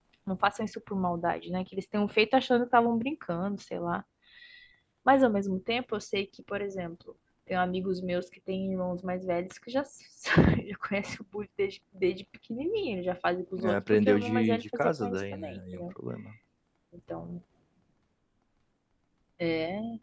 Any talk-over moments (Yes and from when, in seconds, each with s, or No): Yes, from 13.6 s